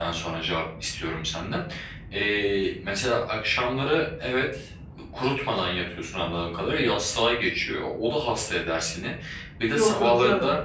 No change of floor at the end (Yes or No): Yes